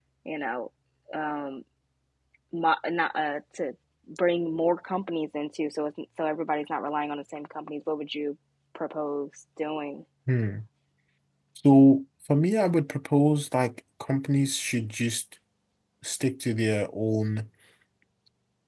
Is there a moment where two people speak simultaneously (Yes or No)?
No